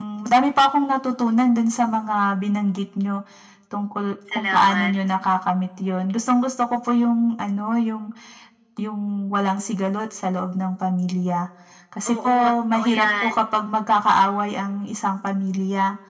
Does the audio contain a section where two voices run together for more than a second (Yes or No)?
Yes